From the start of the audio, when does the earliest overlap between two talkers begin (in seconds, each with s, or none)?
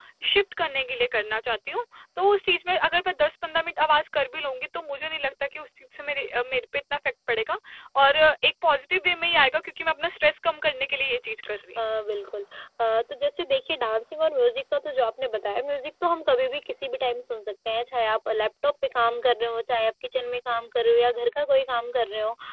none